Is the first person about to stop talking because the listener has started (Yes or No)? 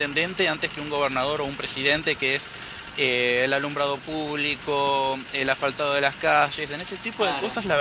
No